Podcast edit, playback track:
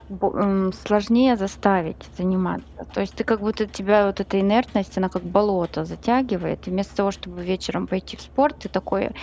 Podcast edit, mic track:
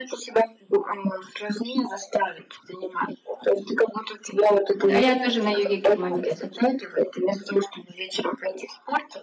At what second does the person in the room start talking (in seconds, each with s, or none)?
4.9 s